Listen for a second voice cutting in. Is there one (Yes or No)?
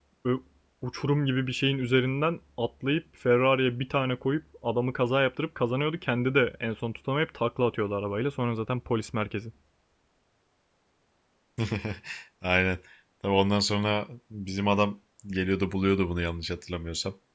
No